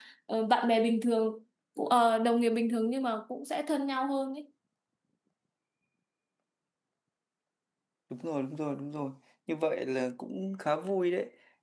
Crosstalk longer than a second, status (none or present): none